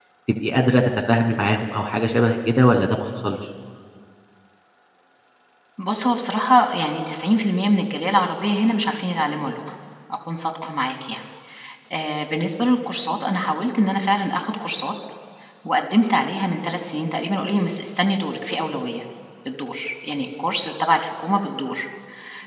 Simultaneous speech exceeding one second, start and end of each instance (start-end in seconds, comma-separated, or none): none